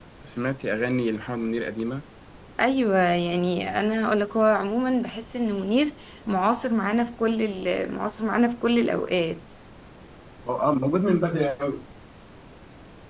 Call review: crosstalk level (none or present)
none